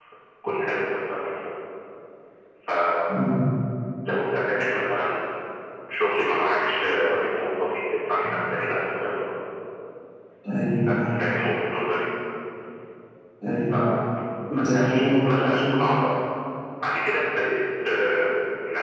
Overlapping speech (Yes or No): Yes